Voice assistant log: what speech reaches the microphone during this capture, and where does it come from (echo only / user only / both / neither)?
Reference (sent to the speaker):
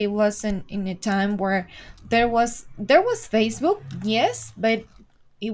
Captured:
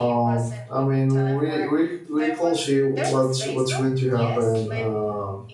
both